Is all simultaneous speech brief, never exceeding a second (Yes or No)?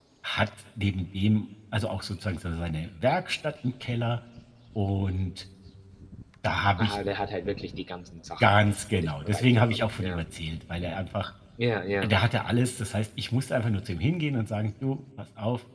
No